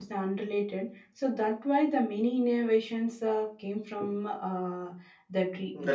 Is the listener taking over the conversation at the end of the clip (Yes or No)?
Yes